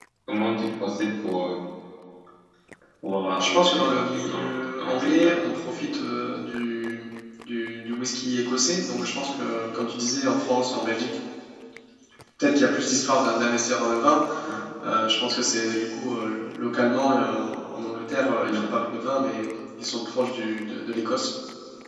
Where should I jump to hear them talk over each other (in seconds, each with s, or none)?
3.4 s